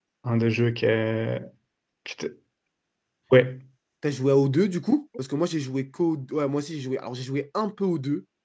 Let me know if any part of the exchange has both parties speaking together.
No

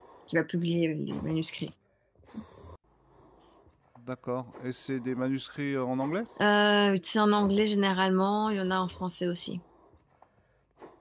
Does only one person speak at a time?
Yes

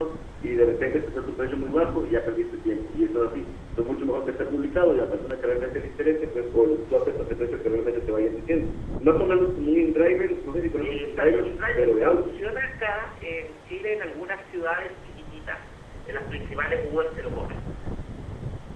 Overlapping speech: Yes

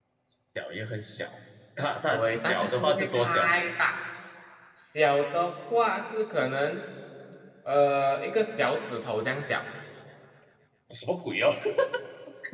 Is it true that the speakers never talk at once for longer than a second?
No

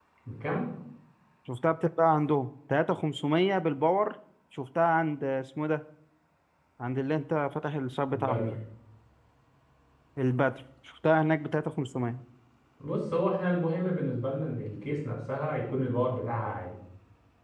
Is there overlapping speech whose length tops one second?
No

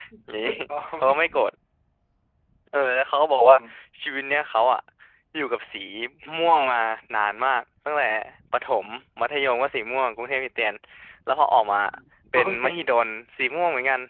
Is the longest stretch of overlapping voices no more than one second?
Yes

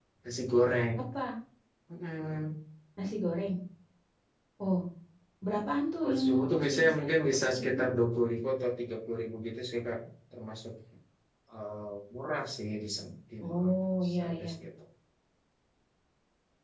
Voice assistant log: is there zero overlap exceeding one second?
No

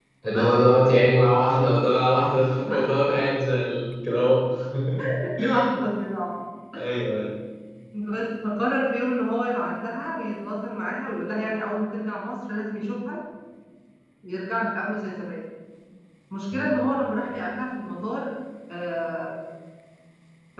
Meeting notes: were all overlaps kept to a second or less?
Yes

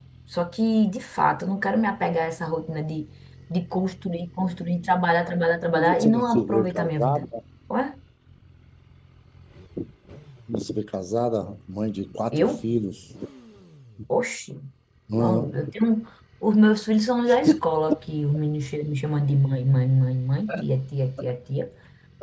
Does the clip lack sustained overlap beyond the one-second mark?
No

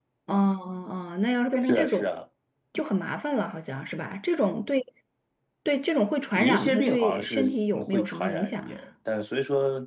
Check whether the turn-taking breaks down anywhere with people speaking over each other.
Yes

